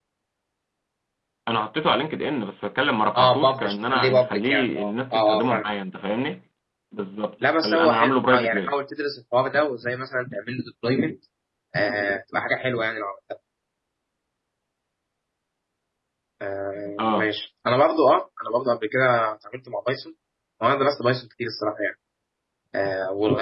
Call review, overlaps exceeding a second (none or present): present